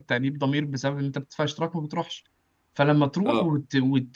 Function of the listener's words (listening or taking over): listening